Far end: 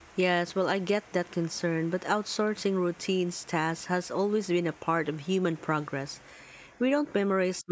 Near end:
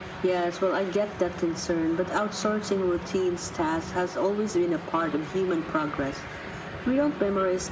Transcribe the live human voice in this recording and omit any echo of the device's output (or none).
none